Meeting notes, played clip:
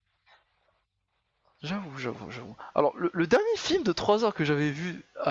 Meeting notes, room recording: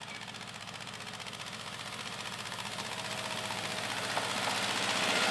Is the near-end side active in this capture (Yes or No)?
No